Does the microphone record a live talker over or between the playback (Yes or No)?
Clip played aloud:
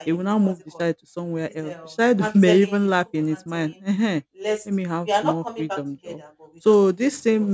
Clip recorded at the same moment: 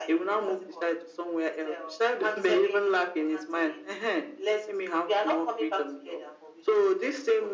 No